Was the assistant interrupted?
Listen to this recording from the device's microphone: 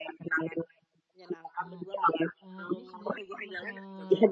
Yes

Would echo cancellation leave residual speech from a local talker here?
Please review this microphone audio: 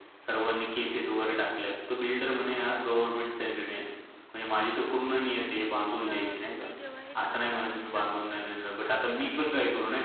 Yes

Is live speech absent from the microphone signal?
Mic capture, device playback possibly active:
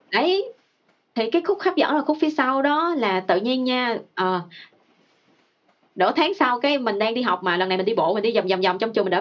Yes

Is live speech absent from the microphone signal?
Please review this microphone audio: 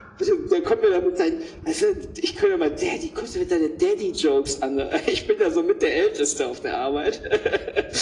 Yes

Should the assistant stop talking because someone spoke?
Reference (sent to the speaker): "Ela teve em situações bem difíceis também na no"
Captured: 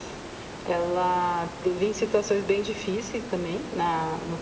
No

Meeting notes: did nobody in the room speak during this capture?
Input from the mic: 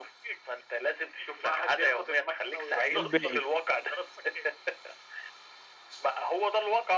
No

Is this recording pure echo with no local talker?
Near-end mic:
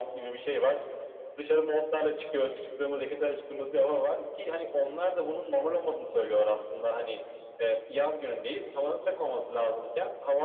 Yes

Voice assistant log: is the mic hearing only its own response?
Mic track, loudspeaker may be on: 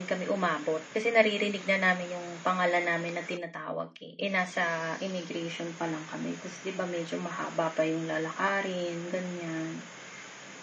Yes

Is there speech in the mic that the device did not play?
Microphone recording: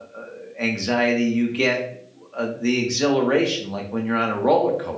Yes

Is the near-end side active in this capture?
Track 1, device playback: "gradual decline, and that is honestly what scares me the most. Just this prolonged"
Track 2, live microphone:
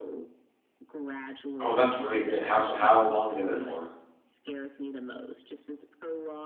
Yes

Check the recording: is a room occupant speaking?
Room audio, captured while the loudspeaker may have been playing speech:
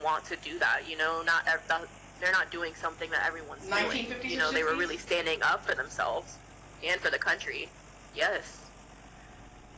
Yes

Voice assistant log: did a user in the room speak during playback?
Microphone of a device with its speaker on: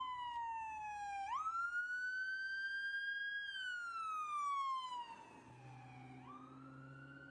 No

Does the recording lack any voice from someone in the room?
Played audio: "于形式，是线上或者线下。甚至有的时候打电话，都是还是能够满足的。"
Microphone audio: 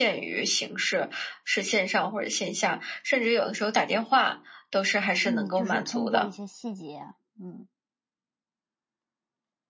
No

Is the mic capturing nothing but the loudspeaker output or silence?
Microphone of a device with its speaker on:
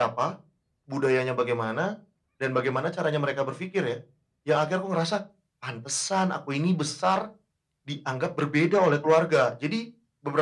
Yes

